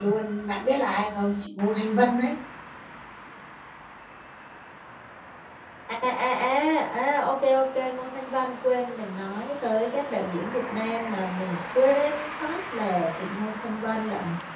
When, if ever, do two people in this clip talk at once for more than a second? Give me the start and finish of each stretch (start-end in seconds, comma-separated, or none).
none